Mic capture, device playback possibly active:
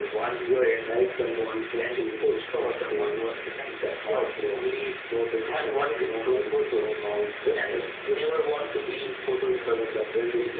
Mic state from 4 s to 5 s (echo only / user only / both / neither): echo only